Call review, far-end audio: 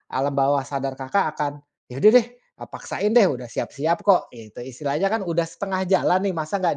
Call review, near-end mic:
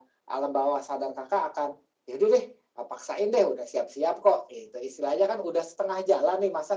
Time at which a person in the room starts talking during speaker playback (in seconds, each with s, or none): none